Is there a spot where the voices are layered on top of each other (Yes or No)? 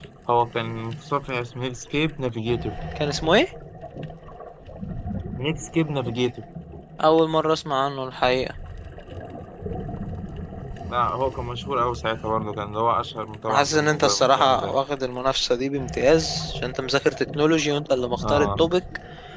Yes